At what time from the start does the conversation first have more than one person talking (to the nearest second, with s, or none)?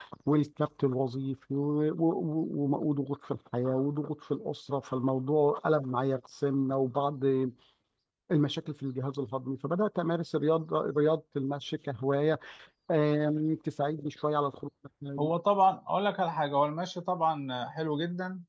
none